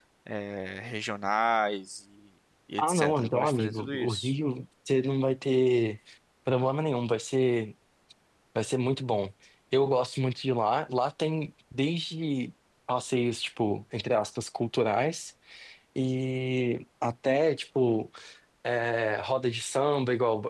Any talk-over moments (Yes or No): Yes